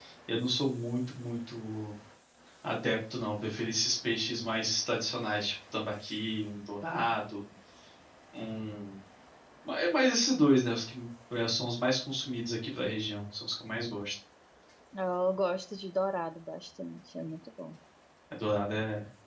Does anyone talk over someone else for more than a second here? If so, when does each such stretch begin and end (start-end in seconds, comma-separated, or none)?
none